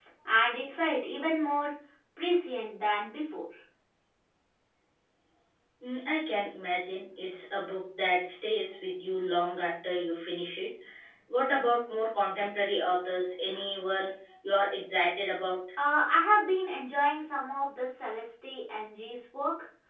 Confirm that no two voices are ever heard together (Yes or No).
Yes